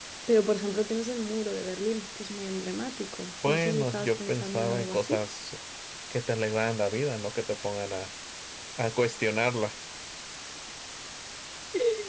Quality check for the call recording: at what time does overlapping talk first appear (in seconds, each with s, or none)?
3.4 s